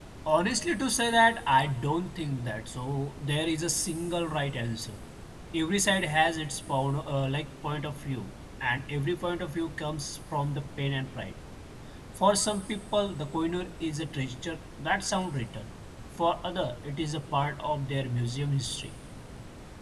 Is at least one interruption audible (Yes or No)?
No